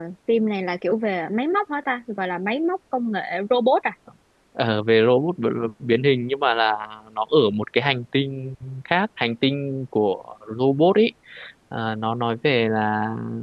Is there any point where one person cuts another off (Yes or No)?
No